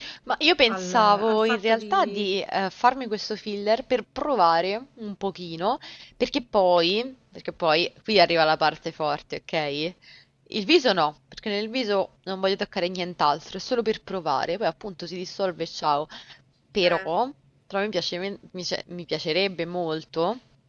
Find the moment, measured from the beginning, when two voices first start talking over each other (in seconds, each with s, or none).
0.7 s